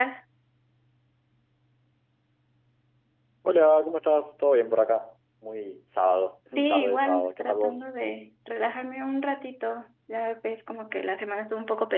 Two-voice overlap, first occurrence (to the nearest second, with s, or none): 7 s